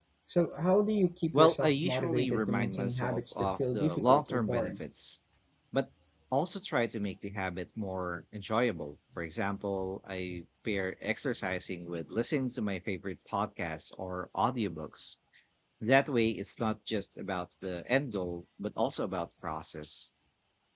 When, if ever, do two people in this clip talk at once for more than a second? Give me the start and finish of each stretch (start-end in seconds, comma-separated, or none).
1.3-4.8